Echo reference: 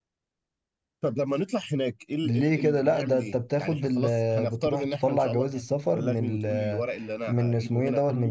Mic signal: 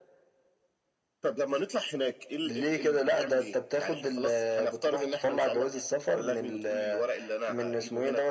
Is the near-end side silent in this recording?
Yes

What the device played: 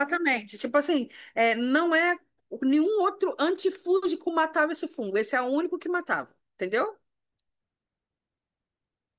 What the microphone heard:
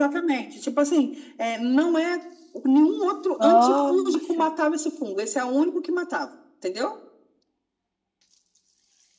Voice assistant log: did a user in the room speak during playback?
Yes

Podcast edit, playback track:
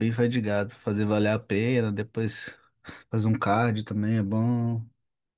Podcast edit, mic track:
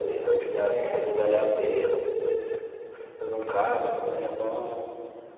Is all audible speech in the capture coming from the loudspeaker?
No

